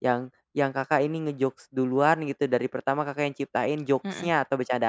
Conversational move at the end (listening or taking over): listening